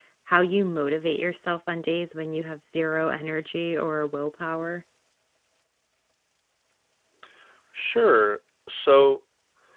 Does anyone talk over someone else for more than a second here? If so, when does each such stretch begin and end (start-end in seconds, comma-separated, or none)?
none